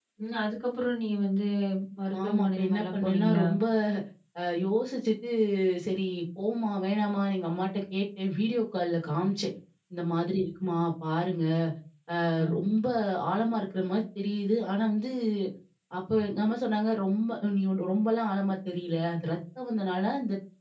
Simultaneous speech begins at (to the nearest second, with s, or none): 2 s